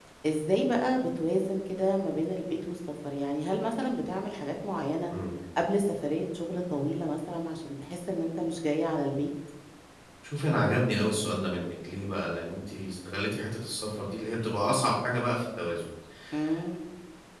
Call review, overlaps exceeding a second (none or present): none